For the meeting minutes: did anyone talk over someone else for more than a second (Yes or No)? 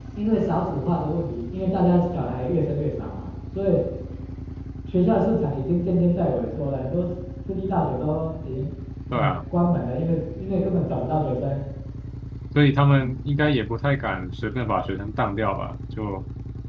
No